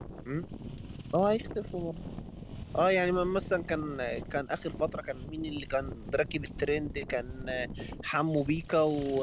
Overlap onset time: none

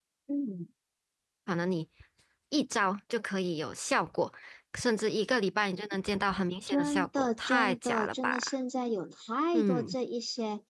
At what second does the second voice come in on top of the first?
6.7 s

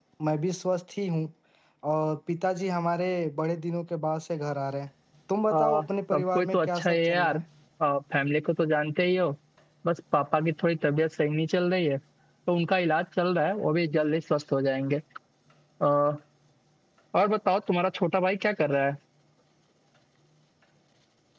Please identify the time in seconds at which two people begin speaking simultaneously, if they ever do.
5.5 s

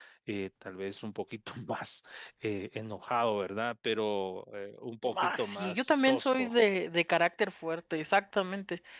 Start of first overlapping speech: 5.0 s

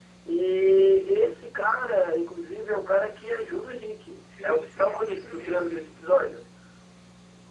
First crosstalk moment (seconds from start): 4.3 s

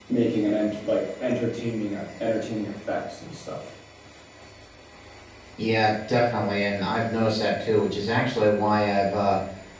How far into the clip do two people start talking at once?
none

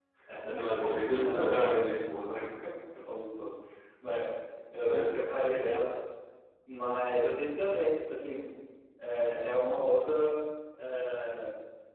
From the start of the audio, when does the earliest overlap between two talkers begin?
0.6 s

